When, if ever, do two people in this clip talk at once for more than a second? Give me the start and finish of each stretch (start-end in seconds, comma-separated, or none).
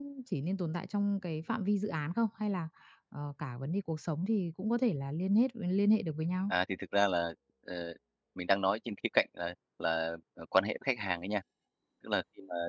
none